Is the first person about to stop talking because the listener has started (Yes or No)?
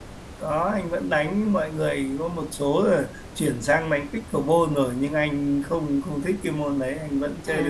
Yes